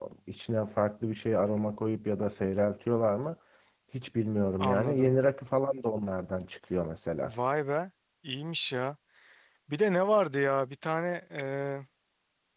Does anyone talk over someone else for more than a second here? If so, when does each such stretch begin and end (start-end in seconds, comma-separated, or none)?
none